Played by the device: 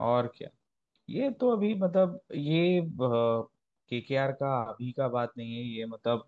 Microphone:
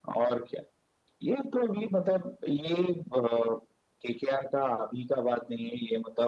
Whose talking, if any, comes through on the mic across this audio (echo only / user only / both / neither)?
echo only